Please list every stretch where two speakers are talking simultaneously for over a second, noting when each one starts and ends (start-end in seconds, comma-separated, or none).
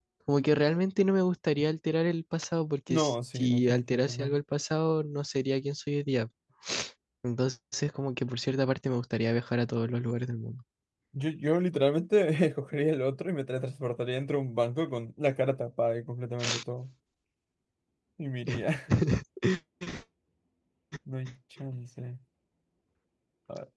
2.9-4.4